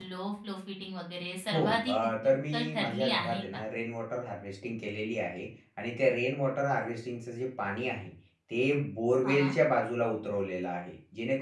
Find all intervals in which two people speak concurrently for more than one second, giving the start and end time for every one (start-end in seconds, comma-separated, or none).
1.5-3.6